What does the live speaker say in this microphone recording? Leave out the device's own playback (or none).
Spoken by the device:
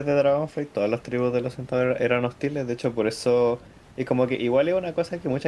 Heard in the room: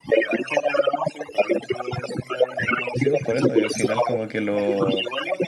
Sí, pues por eso. Y al final como que lo...